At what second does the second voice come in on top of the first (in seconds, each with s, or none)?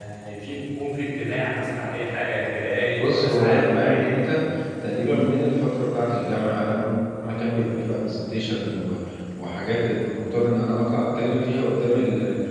3.0 s